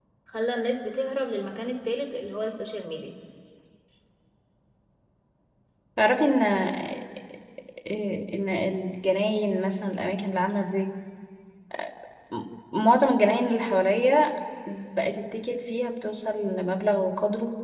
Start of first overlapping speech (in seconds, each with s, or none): none